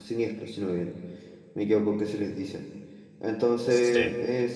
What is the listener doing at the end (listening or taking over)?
listening